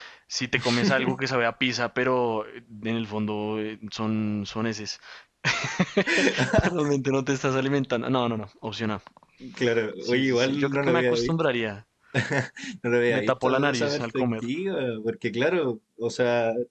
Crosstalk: present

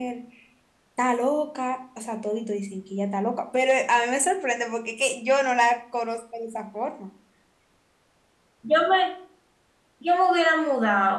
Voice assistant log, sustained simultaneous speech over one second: none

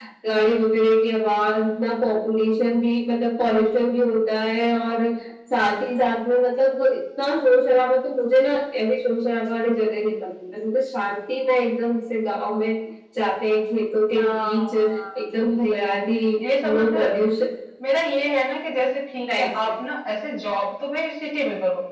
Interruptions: present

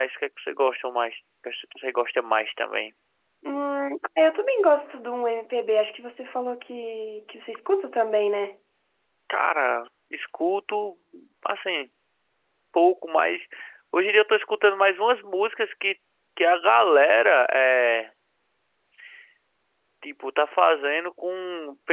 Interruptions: none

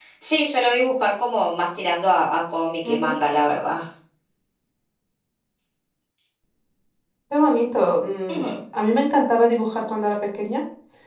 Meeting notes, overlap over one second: none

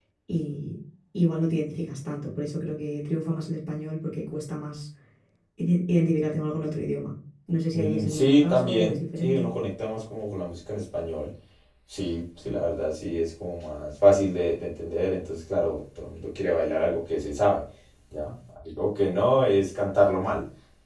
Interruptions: present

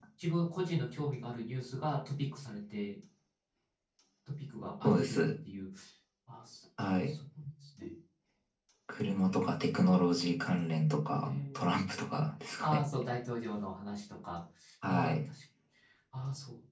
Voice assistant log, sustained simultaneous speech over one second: none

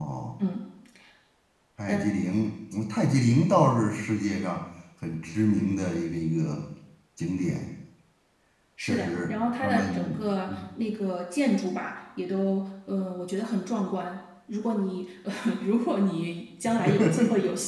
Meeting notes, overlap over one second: present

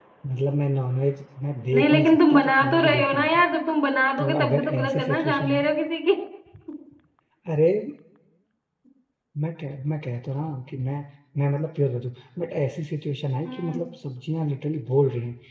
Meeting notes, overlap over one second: present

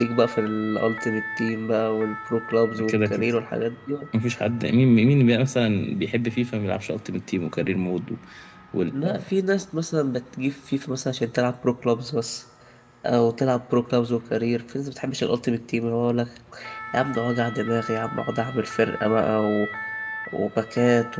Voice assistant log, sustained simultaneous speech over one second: none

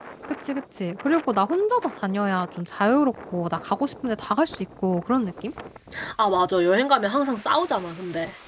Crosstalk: none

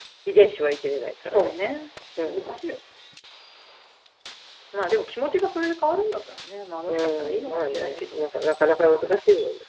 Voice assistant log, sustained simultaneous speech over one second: present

